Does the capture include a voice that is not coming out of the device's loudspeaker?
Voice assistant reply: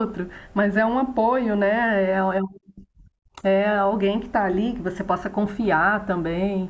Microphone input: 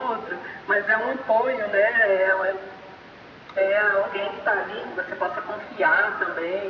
No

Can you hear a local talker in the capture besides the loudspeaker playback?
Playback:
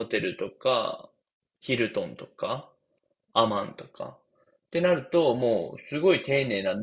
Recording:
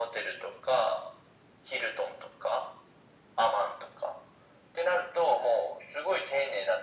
No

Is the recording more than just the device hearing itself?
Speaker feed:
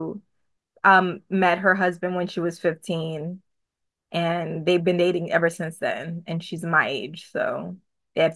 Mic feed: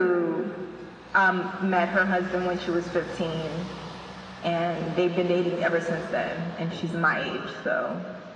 No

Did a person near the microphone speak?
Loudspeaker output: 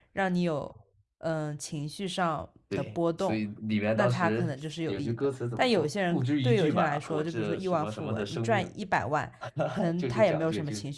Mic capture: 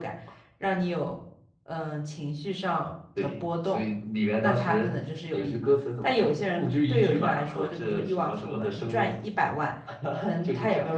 No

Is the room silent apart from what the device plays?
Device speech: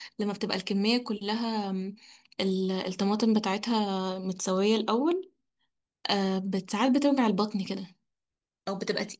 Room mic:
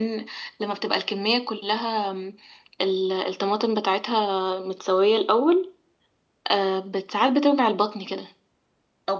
Yes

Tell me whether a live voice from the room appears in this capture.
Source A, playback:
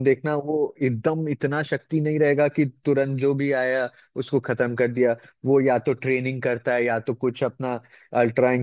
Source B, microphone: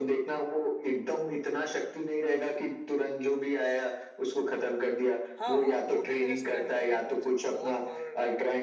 Yes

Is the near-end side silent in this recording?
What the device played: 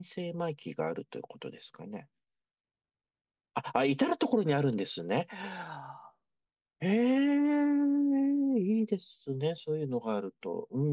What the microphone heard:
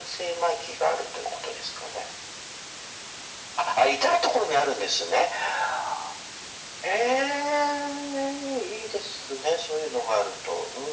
Yes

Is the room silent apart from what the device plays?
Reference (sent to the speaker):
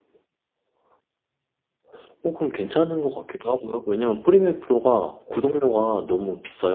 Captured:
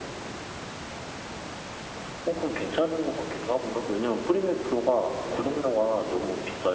Yes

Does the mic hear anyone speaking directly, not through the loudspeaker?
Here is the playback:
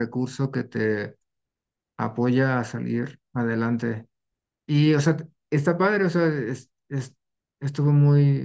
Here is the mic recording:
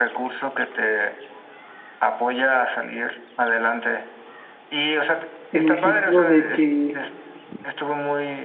Yes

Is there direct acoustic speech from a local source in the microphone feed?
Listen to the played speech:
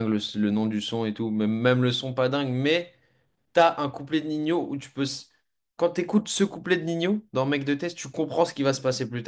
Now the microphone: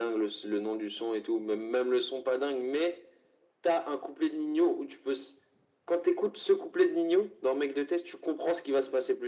No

